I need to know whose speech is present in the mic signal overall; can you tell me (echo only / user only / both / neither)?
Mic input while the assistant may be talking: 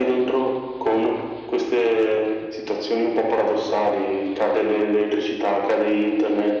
echo only